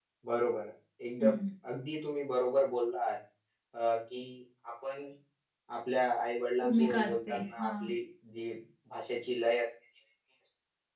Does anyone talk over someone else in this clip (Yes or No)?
Yes